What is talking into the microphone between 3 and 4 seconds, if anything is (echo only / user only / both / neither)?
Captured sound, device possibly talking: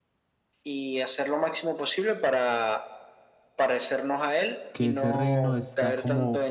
echo only